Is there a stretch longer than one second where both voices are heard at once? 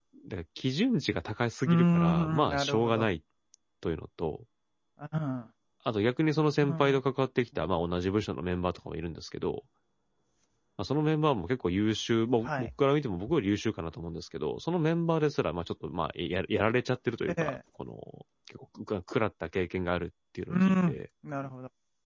Yes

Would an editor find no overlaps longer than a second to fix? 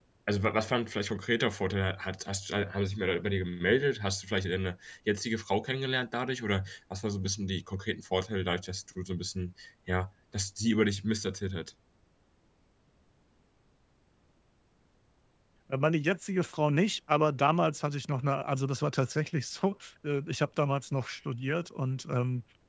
Yes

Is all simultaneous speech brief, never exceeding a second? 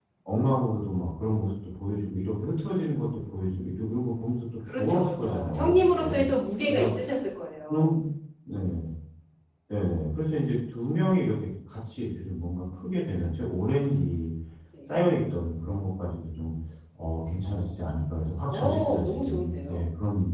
No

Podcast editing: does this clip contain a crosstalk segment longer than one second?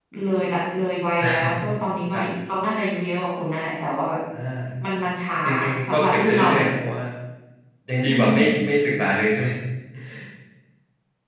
Yes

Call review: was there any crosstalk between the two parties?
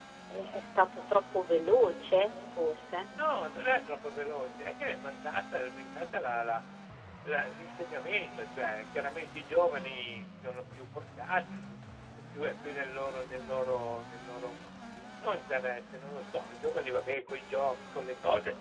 No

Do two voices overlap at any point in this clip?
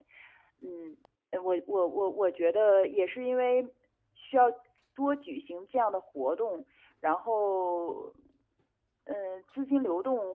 No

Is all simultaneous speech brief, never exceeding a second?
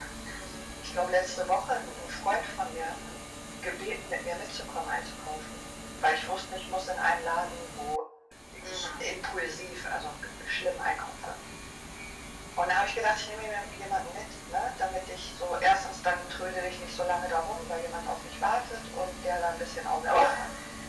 Yes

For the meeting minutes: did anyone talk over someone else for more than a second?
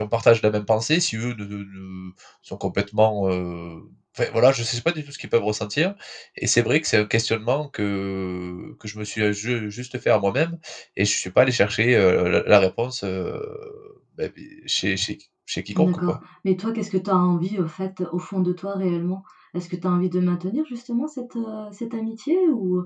No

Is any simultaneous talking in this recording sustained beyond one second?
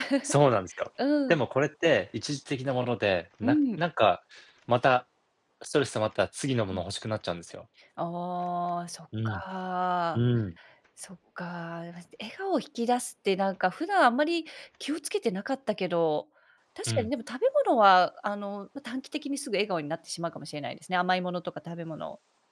No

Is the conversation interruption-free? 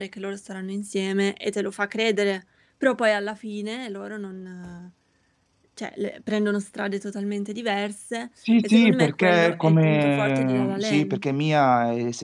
No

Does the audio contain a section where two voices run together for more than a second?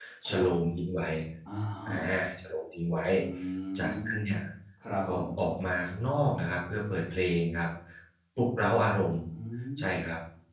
No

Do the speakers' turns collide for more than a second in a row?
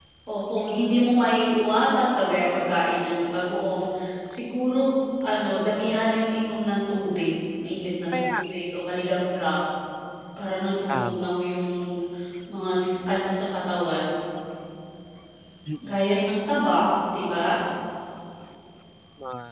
No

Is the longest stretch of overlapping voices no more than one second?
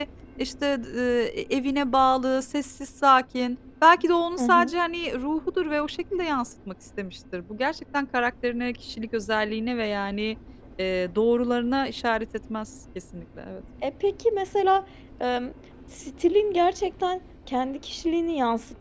Yes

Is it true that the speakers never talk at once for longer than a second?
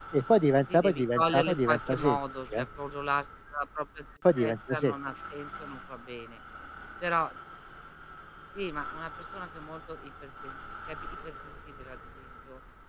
No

